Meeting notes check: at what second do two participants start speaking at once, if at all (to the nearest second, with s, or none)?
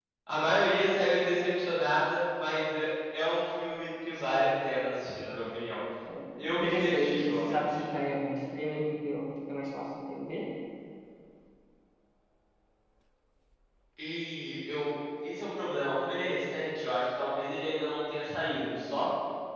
6 s